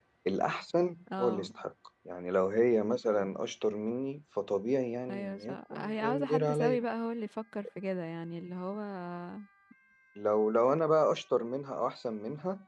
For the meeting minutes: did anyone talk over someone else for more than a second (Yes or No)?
Yes